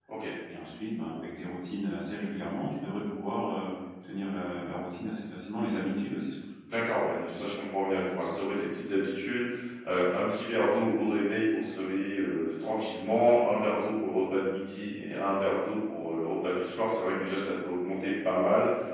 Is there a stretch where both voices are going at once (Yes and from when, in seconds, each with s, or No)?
No